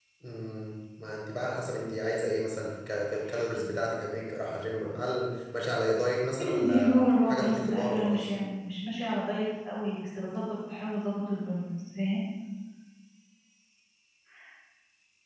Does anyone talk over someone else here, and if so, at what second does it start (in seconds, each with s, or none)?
6.4 s